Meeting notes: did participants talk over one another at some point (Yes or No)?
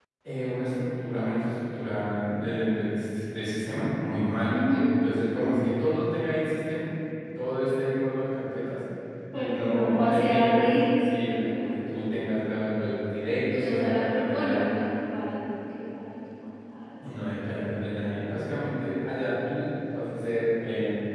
Yes